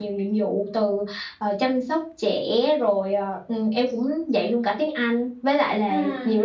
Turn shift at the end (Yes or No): No